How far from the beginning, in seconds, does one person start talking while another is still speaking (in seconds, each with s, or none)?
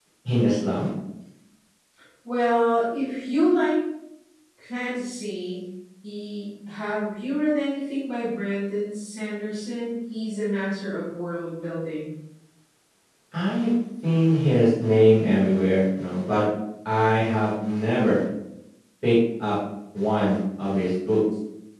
none